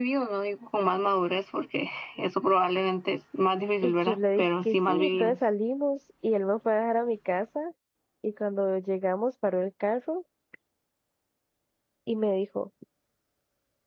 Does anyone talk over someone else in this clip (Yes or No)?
Yes